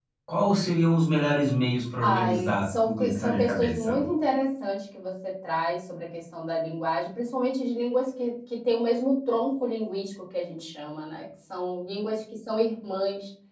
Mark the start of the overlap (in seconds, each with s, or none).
2.0 s